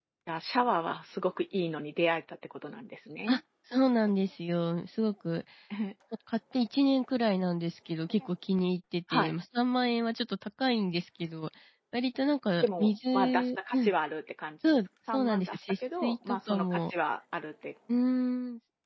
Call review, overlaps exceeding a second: present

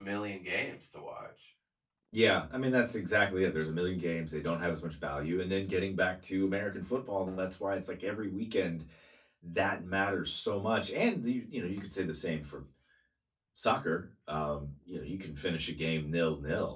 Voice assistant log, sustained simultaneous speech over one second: none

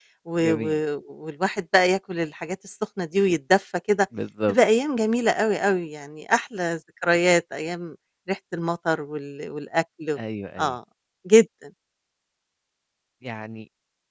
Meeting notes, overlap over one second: none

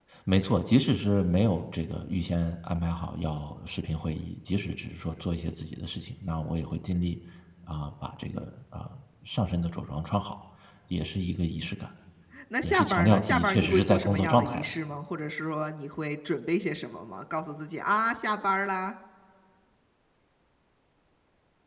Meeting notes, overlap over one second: present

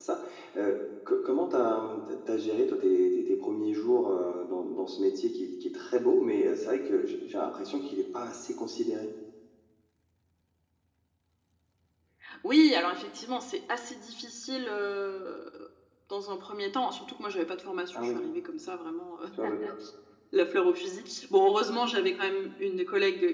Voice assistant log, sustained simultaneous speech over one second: none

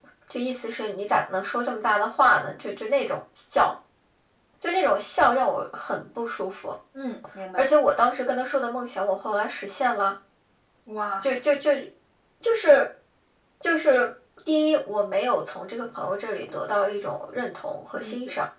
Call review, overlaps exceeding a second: none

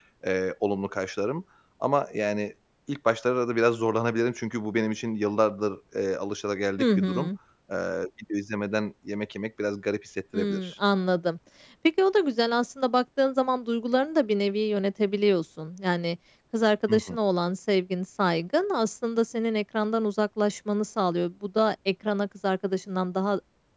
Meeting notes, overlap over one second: none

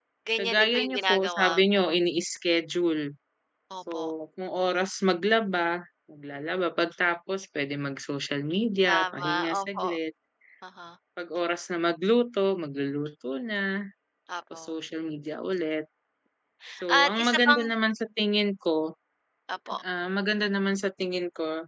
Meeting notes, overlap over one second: present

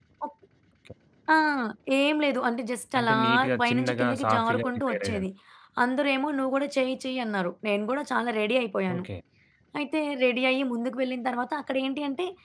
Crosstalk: present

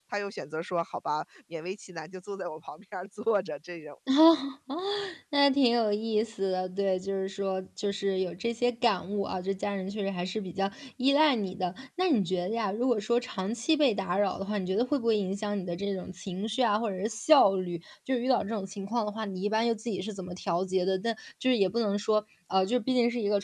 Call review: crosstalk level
none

